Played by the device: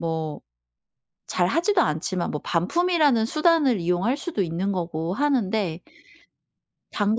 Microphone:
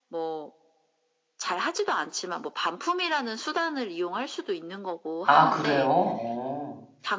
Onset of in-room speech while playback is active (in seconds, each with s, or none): 5.2 s